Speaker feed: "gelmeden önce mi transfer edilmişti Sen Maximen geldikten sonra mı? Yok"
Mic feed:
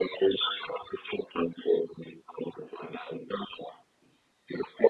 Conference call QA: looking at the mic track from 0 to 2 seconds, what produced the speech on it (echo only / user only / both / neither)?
echo only